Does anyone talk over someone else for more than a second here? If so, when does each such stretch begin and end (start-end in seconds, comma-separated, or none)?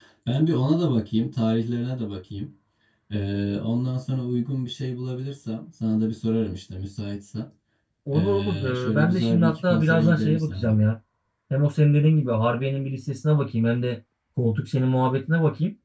8.1-10.7